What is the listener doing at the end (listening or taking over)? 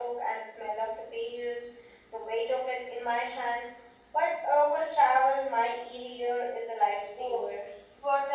taking over